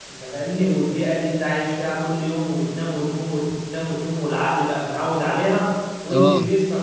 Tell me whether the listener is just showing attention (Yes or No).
Yes